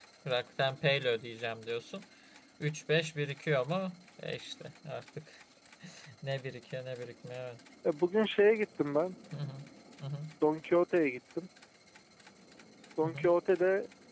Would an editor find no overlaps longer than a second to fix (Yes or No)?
Yes